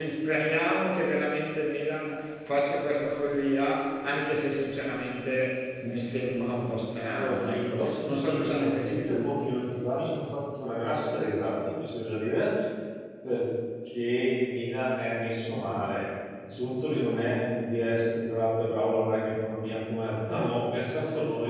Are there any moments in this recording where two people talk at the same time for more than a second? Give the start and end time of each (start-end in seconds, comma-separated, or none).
7.1-9.2